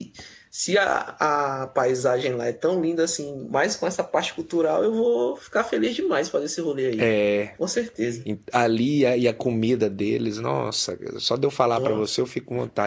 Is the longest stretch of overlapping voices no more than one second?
Yes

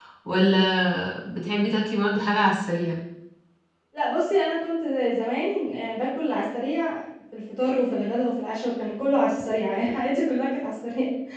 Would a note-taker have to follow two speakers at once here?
No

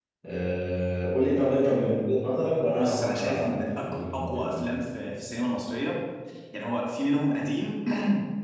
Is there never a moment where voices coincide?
No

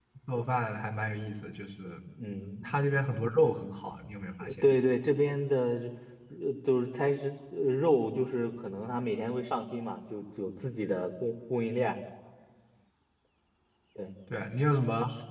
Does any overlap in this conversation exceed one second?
No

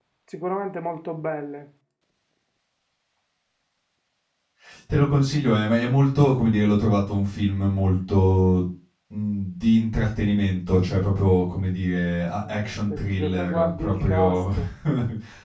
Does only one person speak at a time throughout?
No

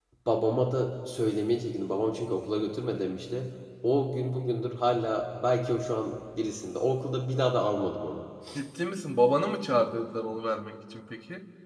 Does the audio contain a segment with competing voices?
No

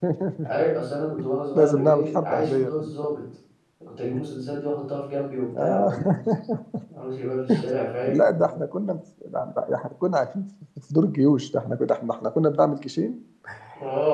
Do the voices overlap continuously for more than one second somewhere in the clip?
Yes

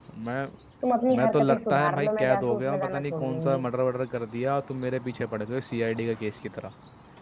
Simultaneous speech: Yes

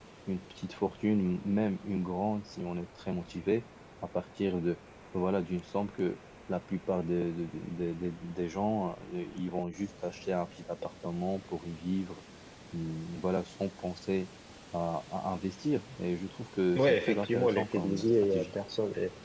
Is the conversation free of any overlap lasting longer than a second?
No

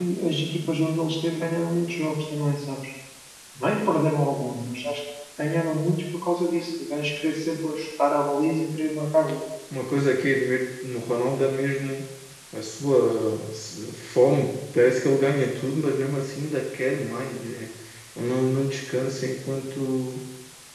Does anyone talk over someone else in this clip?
No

